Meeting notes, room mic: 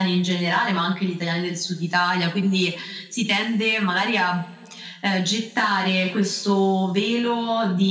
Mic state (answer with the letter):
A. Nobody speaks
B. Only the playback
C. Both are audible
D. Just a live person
B